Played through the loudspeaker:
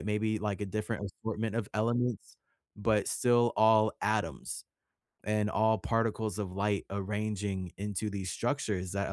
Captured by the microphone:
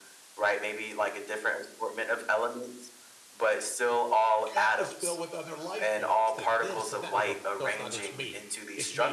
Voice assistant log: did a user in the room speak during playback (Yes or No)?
Yes